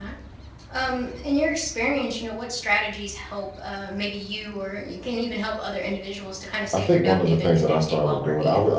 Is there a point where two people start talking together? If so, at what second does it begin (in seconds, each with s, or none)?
6.7 s